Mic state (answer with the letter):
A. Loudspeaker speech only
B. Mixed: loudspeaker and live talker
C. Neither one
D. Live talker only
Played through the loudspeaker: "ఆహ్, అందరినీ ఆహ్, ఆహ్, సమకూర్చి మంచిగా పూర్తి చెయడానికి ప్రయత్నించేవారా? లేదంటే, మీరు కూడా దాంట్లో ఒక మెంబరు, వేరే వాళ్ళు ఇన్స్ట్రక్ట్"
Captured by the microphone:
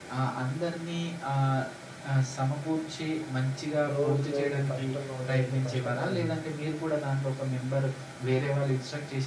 B